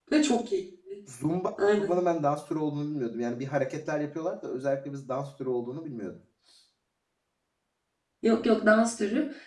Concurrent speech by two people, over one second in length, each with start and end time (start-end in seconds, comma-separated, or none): none